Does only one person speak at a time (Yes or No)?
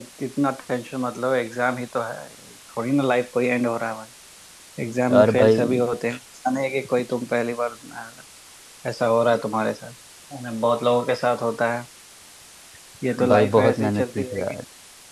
No